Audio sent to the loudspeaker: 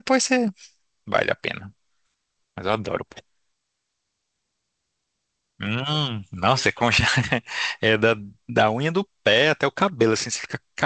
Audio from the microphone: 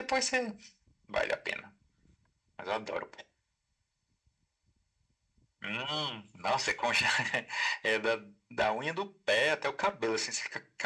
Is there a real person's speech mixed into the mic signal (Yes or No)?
No